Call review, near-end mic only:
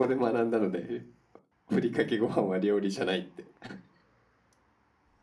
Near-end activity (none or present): present